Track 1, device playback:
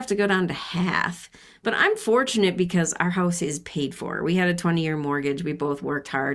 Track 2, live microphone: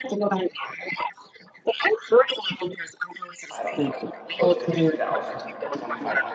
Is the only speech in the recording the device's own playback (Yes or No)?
No